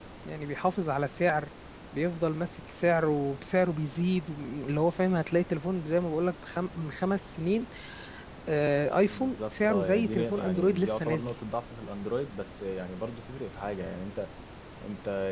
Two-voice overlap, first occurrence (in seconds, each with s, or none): 9.1 s